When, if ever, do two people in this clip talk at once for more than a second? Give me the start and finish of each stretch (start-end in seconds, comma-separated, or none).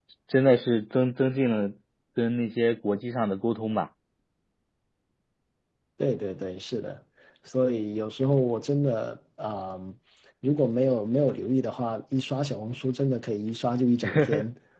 none